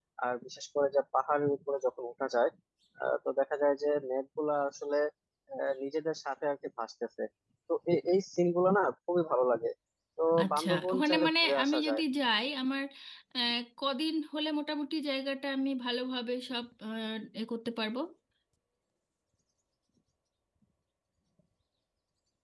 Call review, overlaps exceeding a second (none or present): present